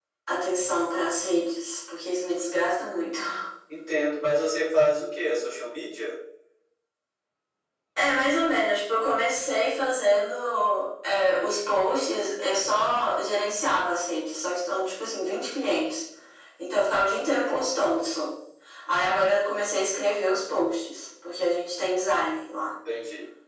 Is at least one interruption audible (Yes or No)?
No